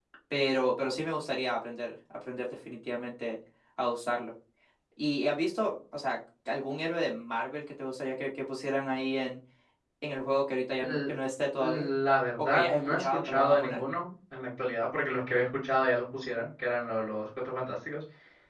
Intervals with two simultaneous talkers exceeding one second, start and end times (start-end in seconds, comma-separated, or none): 12.4-13.8